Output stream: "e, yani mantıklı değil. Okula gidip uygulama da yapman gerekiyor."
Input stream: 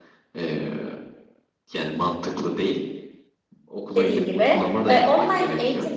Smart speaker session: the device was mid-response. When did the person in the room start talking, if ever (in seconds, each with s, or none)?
4.0 s